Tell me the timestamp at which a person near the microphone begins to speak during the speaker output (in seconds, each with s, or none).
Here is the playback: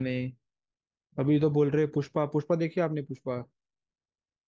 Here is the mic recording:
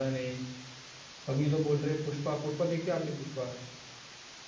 none